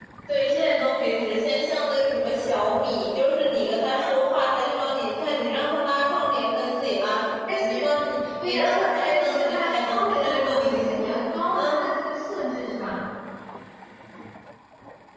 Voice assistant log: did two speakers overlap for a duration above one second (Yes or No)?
Yes